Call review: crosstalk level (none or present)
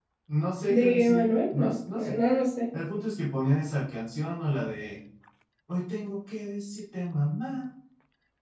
present